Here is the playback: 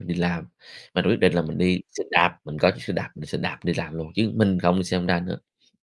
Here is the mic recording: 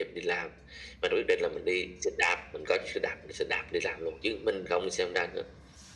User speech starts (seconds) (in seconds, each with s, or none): none